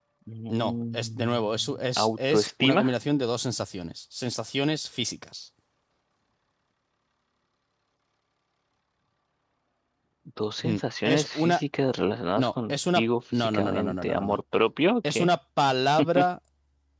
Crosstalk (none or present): present